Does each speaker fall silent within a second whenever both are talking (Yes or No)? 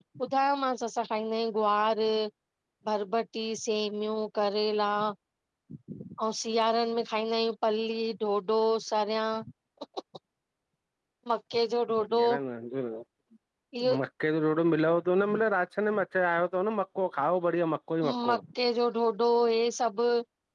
Yes